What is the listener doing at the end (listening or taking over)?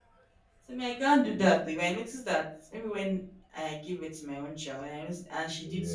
listening